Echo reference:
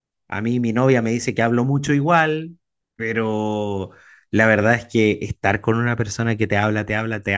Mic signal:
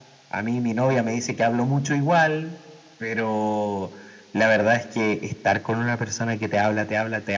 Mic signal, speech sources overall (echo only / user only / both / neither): echo only